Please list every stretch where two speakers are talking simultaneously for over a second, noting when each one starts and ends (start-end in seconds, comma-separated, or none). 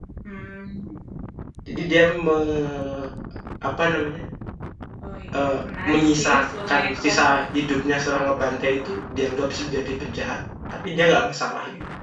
5.9-7.7